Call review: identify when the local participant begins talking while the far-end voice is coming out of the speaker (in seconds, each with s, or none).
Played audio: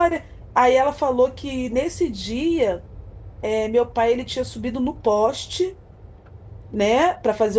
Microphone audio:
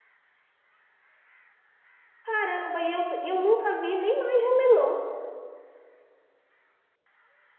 2.2 s